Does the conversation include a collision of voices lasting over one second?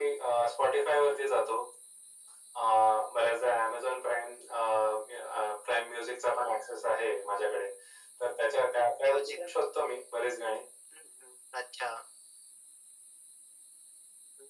No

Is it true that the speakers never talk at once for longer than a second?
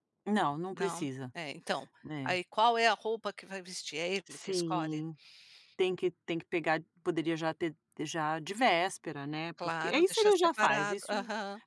No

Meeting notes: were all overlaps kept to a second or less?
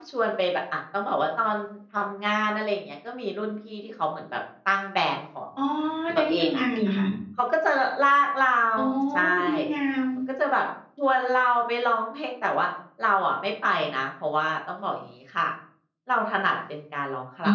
Yes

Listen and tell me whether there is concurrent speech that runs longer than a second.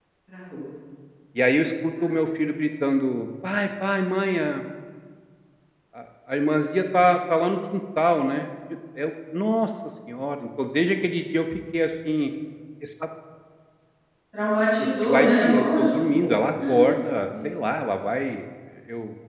Yes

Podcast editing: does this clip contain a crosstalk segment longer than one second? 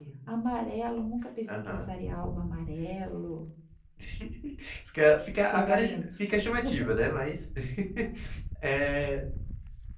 No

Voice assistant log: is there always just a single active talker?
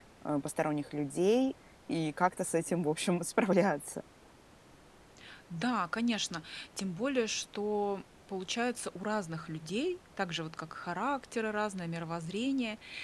Yes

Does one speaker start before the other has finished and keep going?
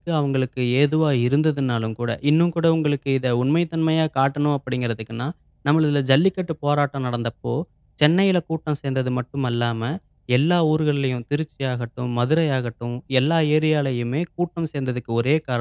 No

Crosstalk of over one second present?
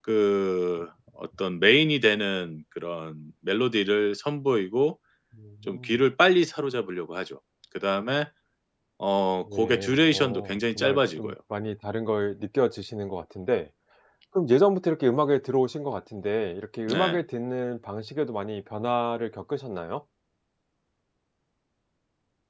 Yes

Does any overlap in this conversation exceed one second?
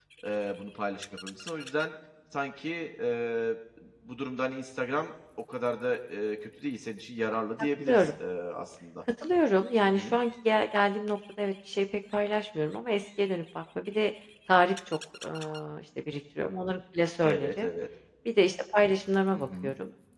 No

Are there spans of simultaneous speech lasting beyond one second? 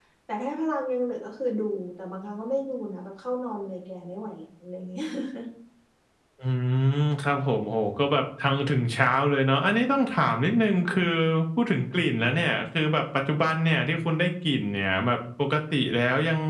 No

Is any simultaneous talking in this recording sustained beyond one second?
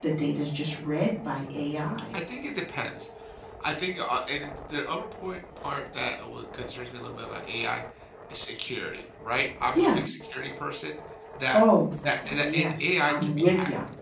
Yes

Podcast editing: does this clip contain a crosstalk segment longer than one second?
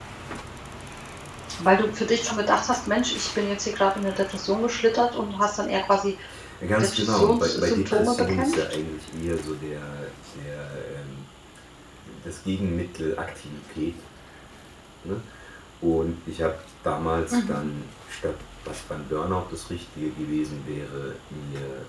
Yes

